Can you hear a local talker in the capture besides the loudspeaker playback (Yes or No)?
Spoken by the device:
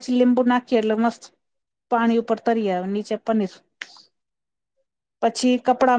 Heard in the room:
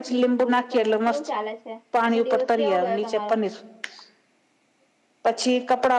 Yes